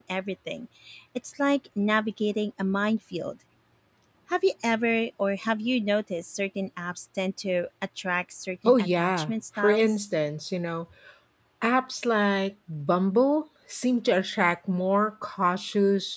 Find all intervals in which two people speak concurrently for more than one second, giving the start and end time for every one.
8.6-9.9

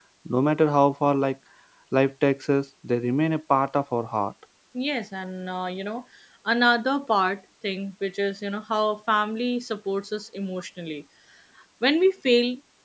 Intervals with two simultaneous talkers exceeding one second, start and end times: none

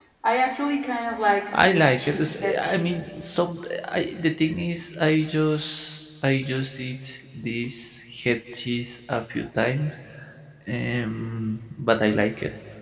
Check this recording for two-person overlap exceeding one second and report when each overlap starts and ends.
1.6-2.9

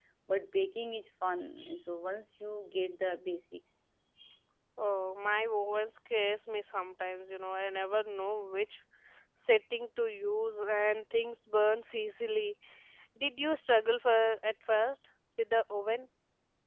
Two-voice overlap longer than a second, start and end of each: none

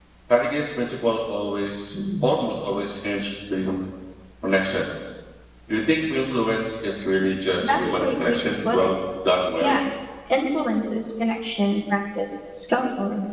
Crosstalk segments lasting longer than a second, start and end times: 7.6-8.9

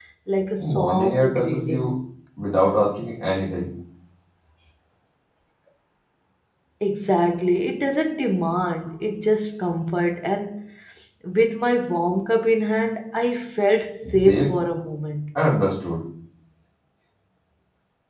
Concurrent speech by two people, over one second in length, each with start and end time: 0.6-1.9

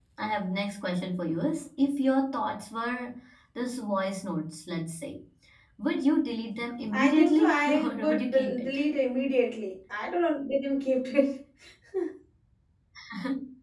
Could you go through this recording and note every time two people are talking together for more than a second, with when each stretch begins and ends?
6.9-8.8

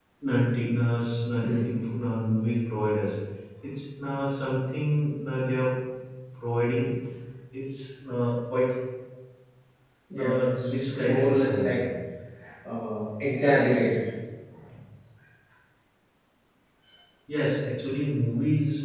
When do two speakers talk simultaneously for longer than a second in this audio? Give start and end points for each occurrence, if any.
10.2-11.9

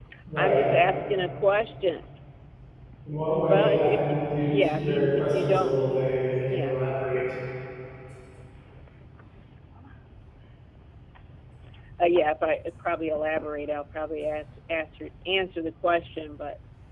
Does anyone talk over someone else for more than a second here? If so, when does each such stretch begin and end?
4.5-5.7

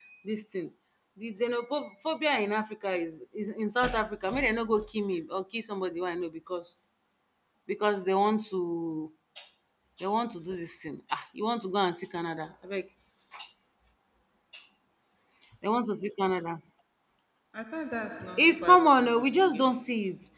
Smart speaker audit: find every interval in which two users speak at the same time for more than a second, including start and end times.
18.4-19.7

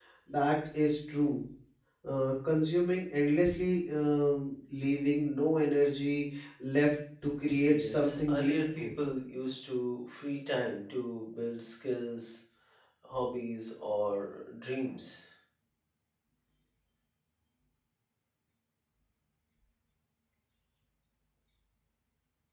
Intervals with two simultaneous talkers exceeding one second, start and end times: 7.7-8.9

